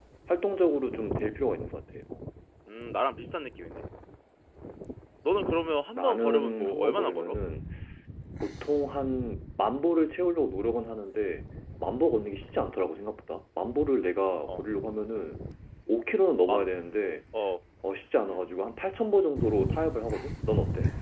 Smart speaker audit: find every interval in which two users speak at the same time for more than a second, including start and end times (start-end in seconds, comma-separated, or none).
6.0-7.4